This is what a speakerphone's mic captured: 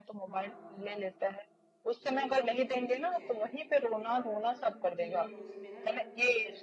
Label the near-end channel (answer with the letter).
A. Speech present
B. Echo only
A